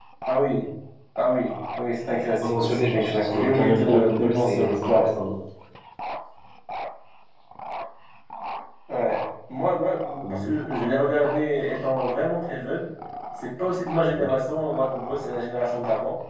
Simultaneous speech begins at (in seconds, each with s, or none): 2.4 s